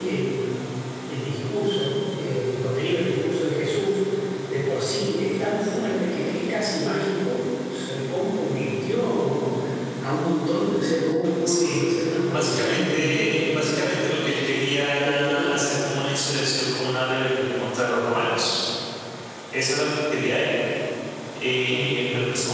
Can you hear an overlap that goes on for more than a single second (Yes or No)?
Yes